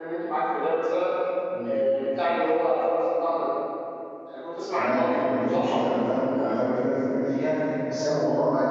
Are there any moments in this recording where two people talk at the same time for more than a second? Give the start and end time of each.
4.7-6.5

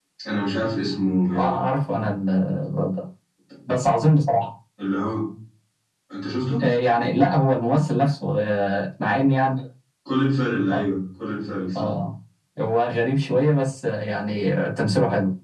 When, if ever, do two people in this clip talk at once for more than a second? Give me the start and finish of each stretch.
none

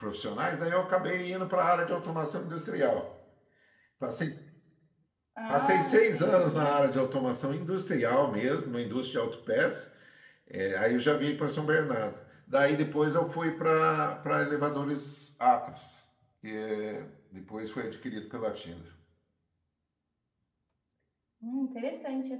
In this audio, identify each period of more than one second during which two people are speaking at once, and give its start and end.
5.5-6.8

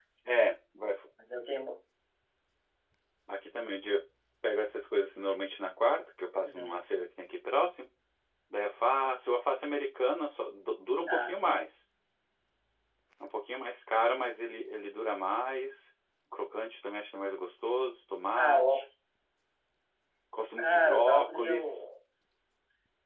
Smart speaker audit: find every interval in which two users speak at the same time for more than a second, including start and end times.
20.6-21.8

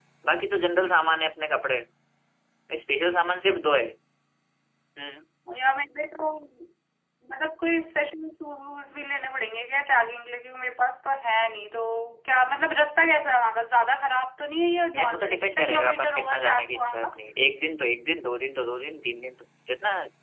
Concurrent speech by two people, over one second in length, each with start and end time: 14.9-17.1

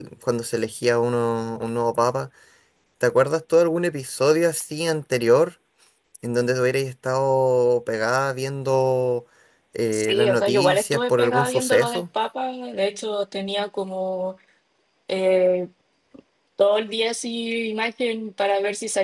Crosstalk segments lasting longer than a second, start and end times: 9.9-12.0

